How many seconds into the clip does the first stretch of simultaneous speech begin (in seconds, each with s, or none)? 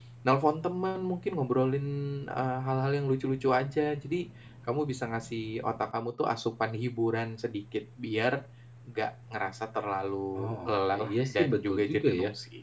10.3 s